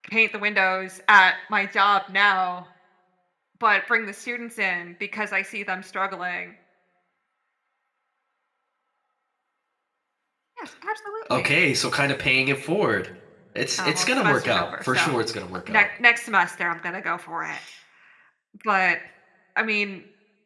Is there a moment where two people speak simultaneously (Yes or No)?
Yes